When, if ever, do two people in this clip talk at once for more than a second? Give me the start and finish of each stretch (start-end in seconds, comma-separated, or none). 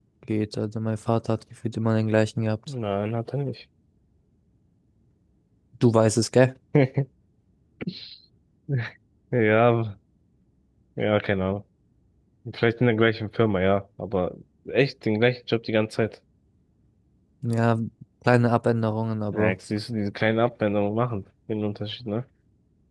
none